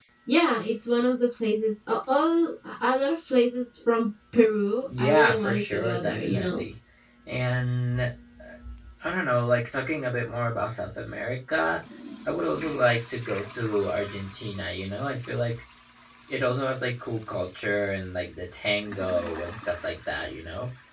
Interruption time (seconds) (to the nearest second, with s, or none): 5 s